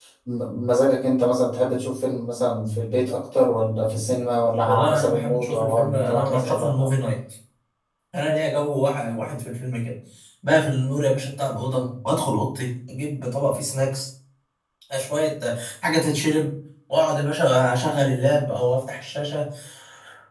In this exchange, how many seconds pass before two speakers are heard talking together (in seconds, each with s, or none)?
4.7 s